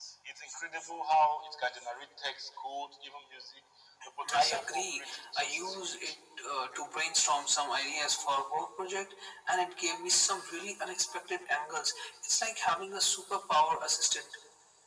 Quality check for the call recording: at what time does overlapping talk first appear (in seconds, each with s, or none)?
4.3 s